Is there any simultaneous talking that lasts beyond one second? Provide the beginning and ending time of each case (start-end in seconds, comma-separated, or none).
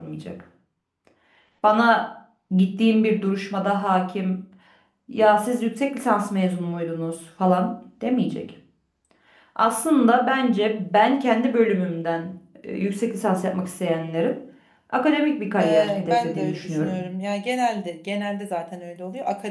15.6-17.0